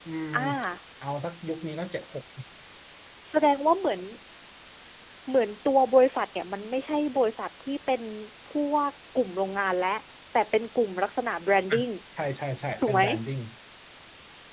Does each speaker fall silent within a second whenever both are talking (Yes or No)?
Yes